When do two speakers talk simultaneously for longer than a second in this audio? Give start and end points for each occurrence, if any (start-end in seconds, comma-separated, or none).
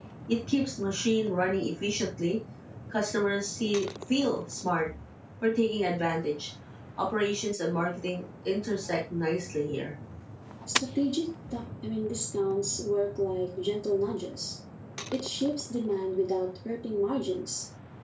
none